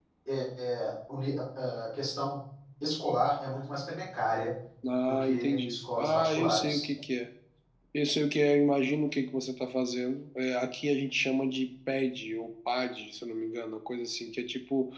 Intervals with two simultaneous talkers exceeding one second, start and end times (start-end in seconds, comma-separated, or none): 5.1-6.9